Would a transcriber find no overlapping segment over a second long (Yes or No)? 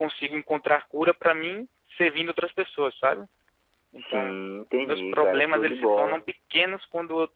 No